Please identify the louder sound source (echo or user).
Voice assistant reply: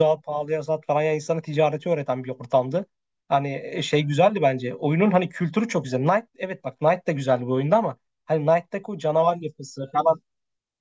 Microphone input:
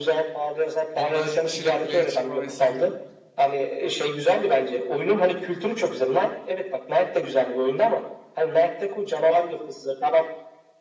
echo